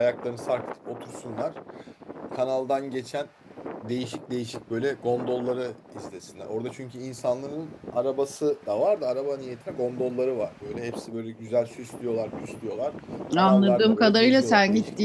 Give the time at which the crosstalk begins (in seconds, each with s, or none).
13.3 s